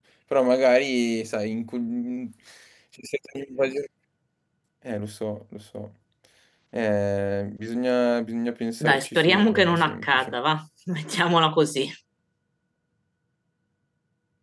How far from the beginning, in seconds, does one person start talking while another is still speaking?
8.8 s

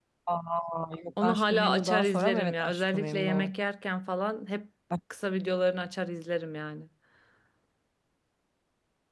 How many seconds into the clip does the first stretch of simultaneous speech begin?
1.2 s

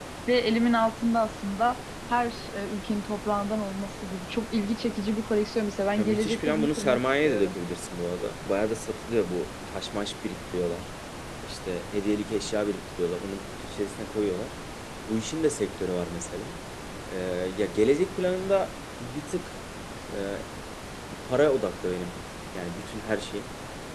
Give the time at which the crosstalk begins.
6.0 s

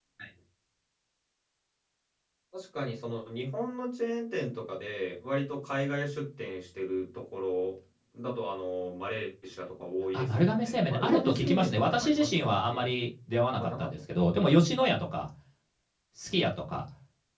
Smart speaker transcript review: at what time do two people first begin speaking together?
10.1 s

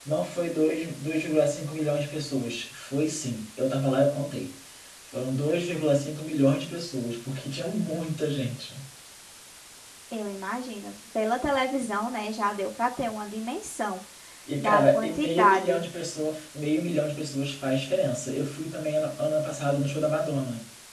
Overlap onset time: 14.6 s

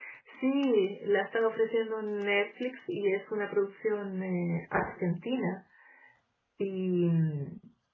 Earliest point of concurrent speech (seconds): none

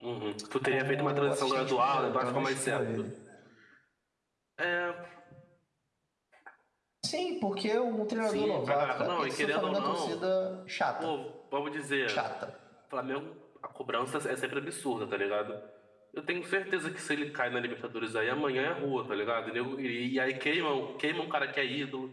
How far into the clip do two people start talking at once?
0.6 s

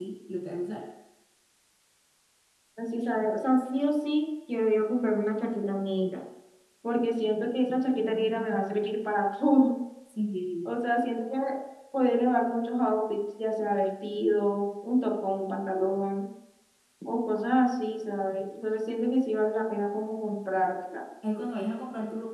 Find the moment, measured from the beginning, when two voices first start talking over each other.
none

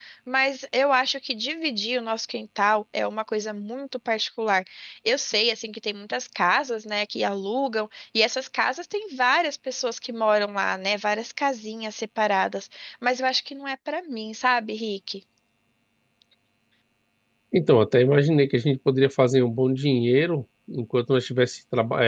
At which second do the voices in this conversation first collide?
none

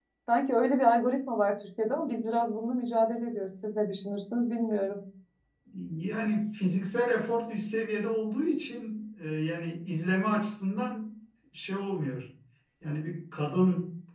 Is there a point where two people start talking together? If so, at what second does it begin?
none

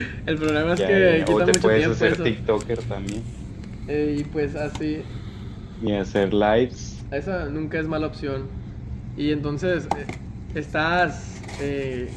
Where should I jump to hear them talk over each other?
0.8 s

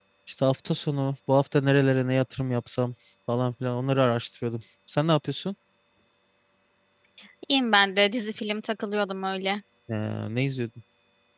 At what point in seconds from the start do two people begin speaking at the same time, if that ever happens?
none

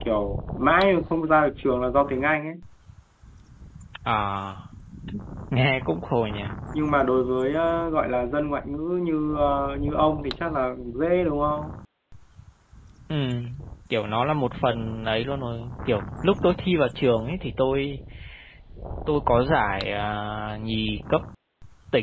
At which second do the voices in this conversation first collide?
none

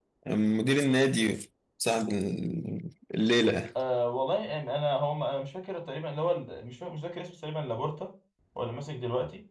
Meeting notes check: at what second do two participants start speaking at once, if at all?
none

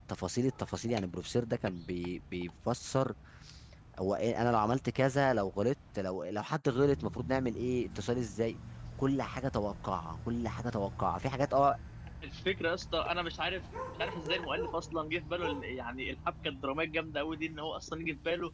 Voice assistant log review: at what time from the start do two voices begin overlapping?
none

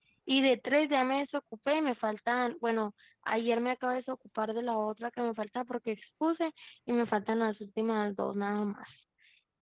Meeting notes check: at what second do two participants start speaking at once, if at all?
none

